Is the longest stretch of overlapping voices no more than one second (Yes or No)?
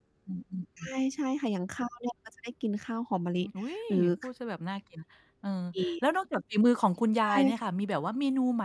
Yes